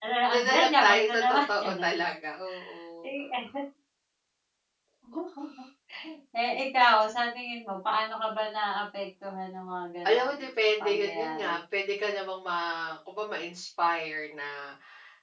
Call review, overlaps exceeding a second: present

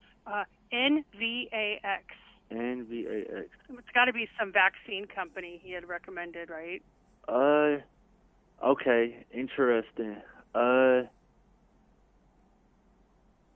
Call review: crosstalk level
none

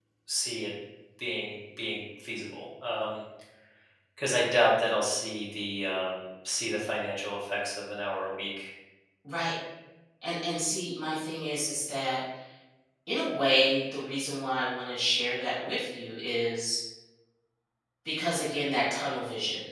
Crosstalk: none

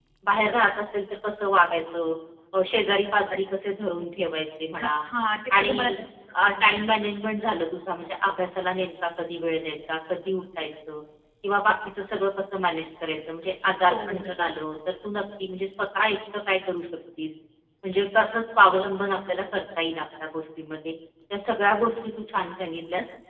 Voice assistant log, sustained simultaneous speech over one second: none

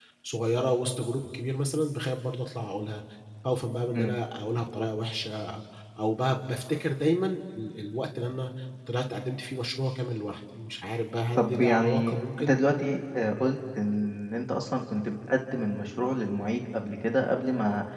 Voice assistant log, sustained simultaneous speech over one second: present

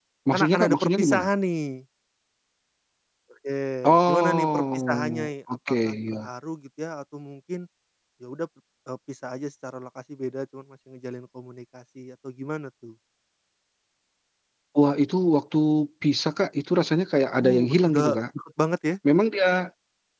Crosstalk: present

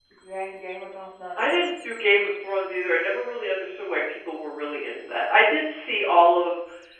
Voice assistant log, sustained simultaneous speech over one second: none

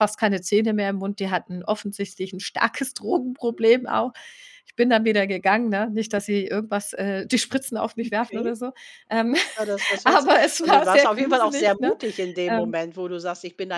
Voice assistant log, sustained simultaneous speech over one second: present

